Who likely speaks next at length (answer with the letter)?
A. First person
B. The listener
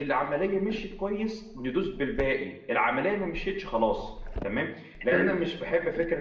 A